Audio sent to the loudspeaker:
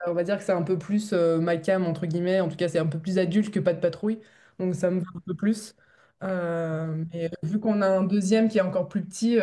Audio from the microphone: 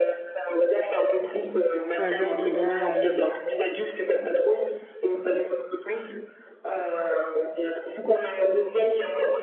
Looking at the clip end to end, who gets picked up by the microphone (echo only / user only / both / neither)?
both